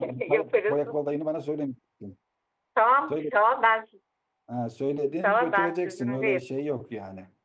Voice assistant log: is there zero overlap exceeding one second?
No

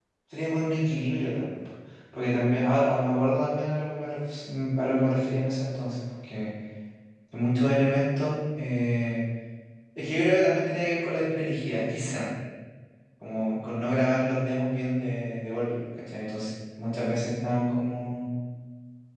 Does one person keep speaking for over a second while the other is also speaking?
No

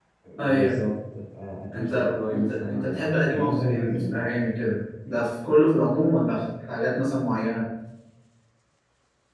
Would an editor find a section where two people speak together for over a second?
Yes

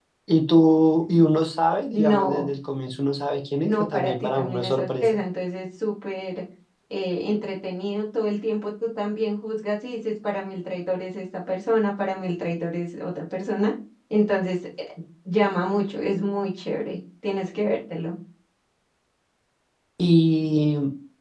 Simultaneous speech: Yes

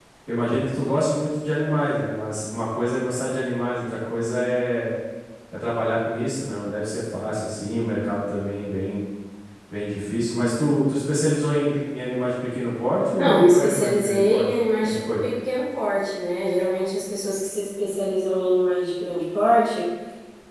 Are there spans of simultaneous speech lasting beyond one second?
Yes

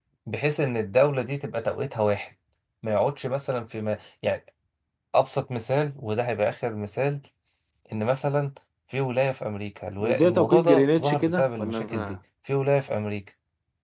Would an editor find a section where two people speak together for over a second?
Yes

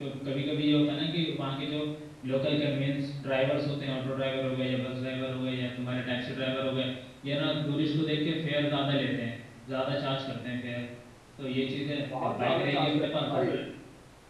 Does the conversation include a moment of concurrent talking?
Yes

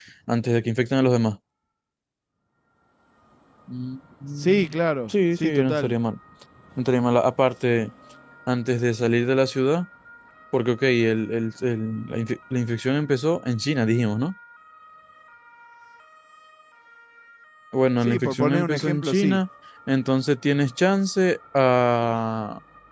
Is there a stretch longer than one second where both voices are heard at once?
Yes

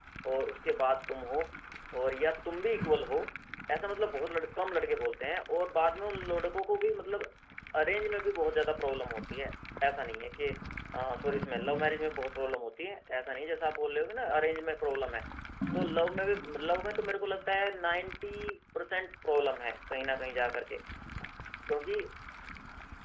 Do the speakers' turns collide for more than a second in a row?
No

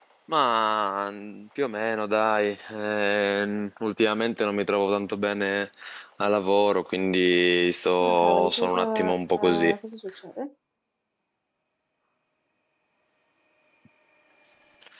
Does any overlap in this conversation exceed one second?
Yes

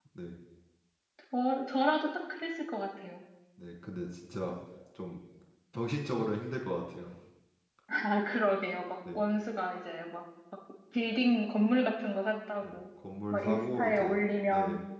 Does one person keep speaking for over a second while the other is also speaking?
Yes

